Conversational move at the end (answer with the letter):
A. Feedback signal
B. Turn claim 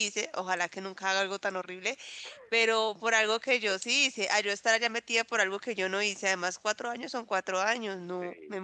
B